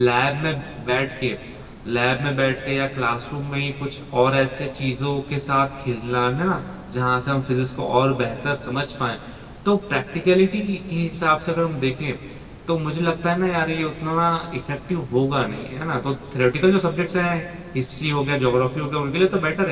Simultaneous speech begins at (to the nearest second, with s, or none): none